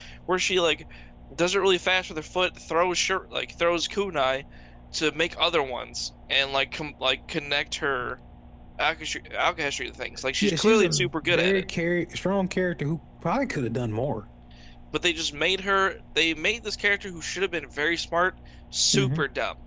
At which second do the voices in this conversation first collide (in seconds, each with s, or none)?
10.4 s